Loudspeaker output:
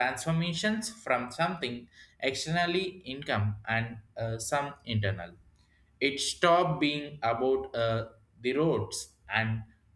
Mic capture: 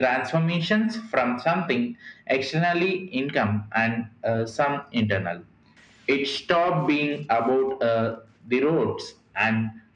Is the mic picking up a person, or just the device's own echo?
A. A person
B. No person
B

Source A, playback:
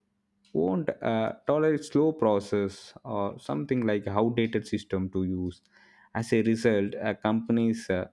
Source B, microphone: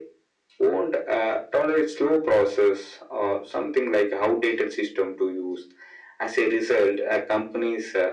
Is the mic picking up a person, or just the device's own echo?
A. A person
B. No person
B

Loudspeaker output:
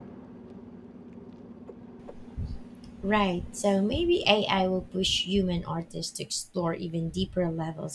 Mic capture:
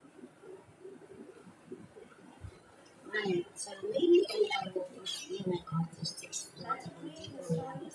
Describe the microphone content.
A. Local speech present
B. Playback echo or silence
A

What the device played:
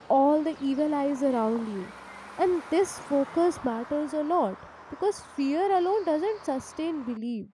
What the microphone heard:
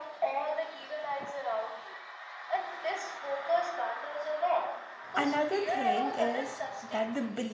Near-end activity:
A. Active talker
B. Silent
A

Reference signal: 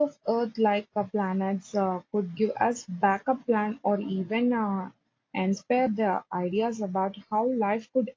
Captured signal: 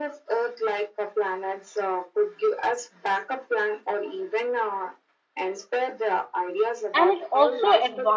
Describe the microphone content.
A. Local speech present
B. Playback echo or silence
A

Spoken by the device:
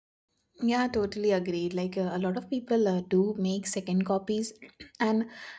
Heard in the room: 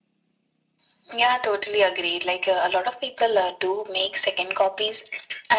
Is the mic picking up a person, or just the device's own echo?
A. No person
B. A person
A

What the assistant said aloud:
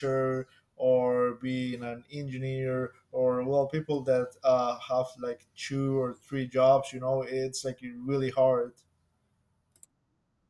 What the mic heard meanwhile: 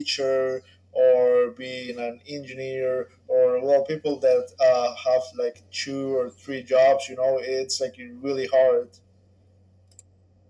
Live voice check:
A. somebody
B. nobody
B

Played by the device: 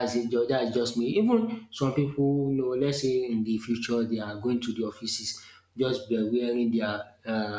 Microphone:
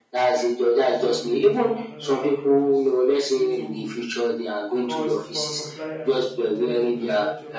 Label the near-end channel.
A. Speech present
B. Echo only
A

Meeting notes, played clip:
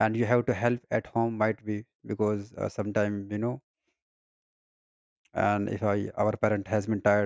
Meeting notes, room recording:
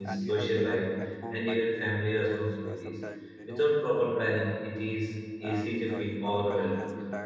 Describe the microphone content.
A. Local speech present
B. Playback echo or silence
A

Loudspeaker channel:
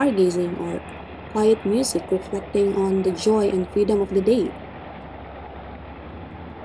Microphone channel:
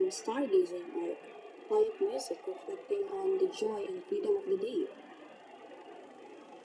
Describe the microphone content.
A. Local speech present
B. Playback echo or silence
B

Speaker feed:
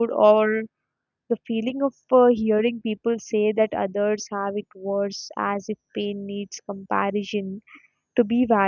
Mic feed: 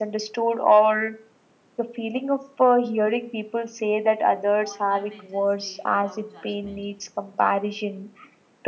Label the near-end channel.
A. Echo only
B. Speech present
B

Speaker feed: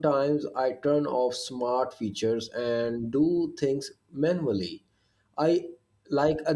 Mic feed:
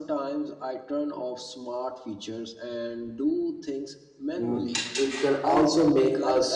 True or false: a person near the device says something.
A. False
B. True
B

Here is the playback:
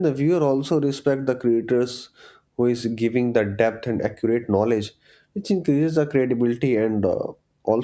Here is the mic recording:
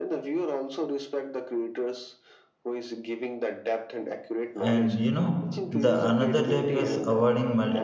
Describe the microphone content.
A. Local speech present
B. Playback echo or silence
A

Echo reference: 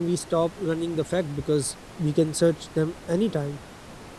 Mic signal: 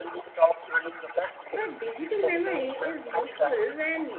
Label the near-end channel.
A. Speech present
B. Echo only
A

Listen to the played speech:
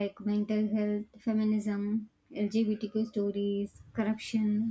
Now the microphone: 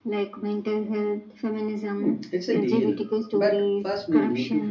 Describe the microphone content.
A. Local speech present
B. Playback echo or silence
A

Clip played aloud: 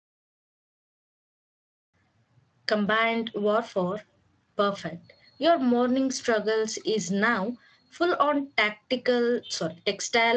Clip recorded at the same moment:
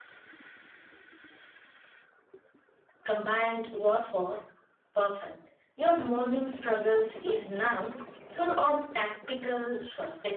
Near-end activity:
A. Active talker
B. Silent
B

